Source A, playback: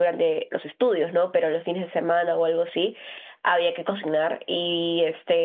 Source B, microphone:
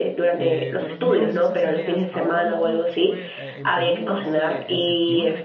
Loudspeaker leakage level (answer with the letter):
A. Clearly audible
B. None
A